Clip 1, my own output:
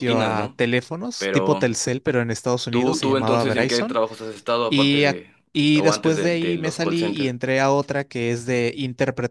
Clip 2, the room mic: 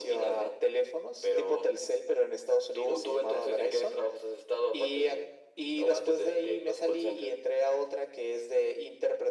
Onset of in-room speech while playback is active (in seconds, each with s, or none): none